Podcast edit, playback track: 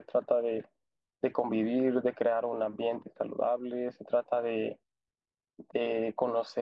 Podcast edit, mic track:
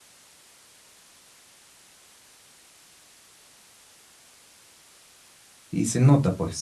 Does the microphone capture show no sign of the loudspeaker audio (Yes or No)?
Yes